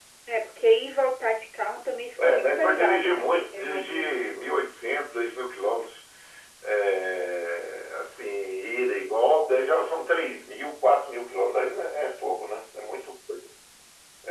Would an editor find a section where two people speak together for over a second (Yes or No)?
Yes